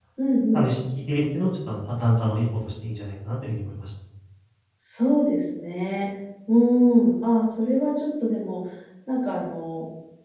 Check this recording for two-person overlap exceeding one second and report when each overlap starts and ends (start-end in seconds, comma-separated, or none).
none